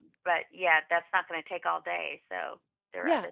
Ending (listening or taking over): taking over